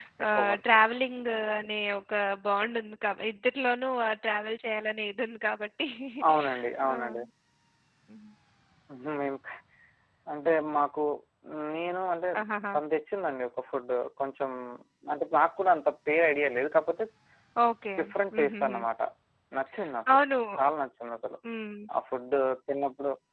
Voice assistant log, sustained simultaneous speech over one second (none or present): none